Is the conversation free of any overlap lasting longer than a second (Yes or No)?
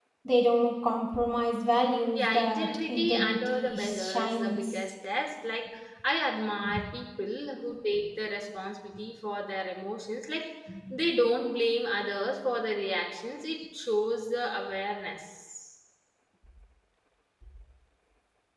No